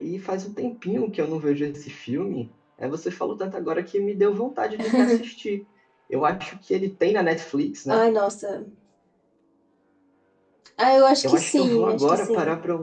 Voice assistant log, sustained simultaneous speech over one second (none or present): present